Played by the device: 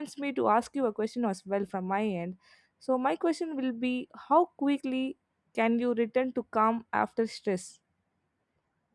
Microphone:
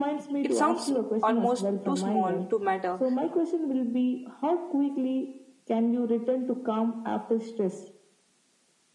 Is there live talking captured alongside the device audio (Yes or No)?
Yes